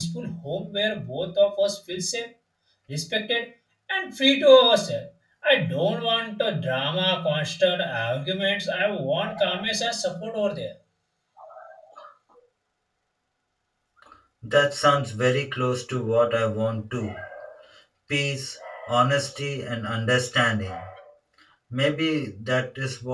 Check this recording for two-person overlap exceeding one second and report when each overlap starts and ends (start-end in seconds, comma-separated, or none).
none